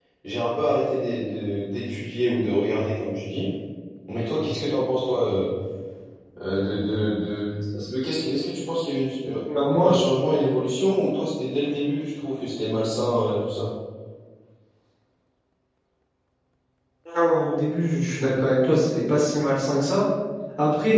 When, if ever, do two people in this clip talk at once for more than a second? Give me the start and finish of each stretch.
none

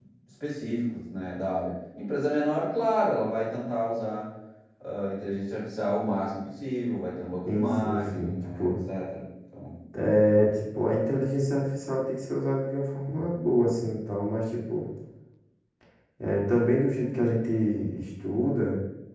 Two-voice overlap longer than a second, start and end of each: 7.5-8.7

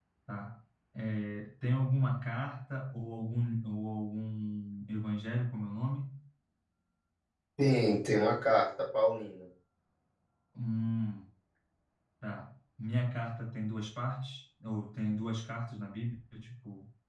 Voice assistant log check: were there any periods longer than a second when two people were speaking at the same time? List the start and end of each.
none

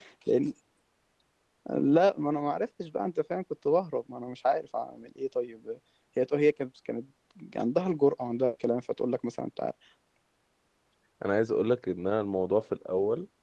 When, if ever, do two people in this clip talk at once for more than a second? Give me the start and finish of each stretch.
none

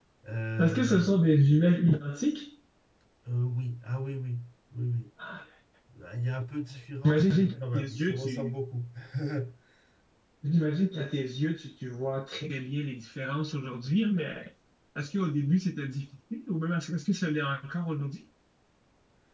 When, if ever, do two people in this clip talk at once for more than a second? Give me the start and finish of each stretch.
7.0-8.5

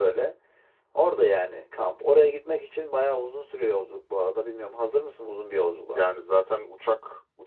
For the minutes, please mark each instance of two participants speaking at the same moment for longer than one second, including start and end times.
none

